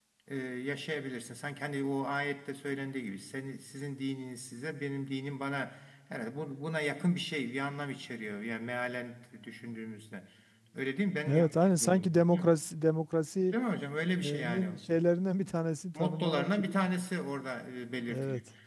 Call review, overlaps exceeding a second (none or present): present